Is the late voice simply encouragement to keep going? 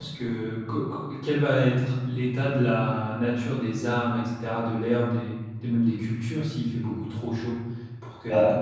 No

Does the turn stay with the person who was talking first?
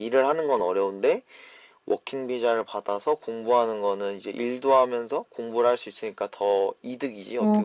No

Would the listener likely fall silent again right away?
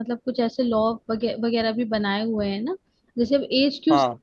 Yes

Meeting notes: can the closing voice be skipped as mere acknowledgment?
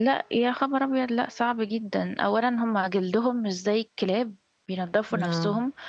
Yes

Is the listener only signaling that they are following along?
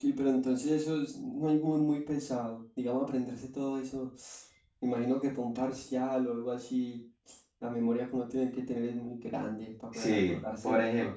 No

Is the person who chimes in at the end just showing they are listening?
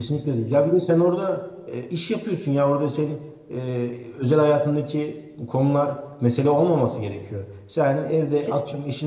Yes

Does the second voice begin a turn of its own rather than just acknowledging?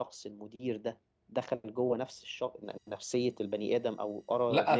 Yes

